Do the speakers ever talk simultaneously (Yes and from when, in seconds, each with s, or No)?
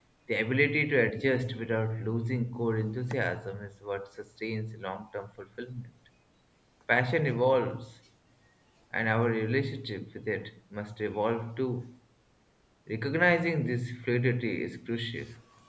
No